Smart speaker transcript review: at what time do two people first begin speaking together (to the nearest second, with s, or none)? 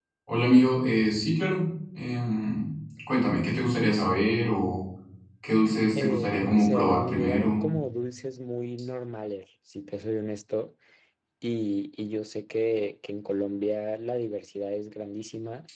6 s